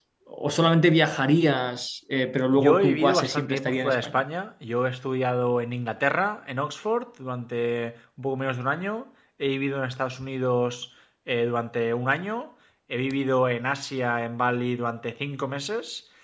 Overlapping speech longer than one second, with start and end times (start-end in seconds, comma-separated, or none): 2.6-4.2